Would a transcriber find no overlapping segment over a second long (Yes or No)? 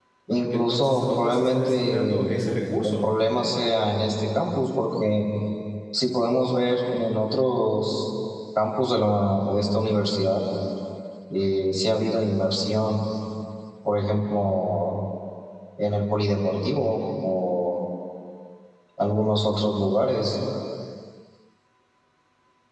No